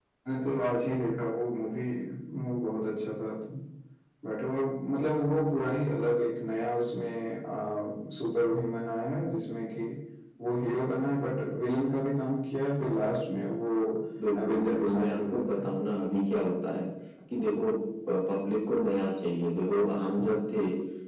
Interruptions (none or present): present